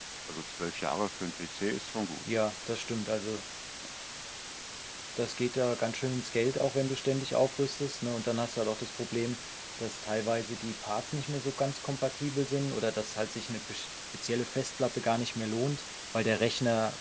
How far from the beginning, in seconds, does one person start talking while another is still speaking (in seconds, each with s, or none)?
none